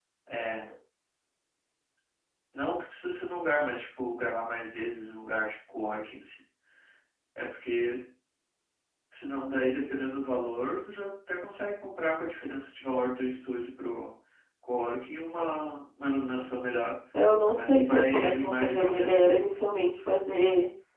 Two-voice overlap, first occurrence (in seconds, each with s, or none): 17.4 s